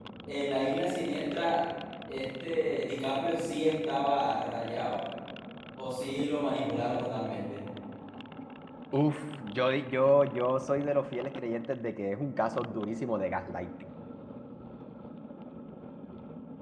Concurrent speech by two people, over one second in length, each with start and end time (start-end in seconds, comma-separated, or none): none